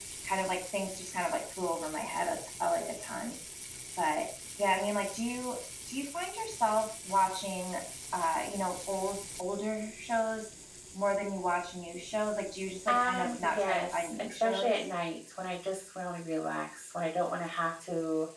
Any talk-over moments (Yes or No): Yes